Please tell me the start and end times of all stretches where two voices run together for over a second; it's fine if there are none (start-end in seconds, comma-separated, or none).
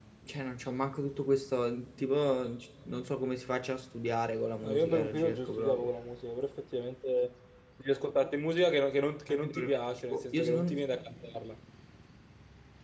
4.6-5.9, 9.3-10.7